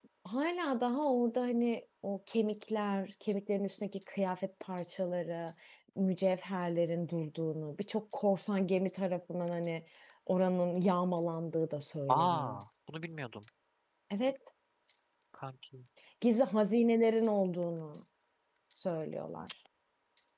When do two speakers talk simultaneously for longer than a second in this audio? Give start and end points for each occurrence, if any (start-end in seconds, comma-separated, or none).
none